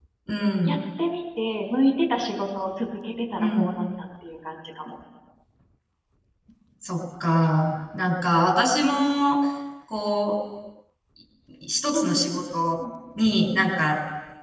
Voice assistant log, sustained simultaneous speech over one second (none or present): none